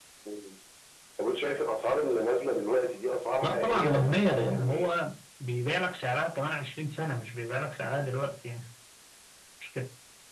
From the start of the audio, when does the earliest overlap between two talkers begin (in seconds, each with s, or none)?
3.4 s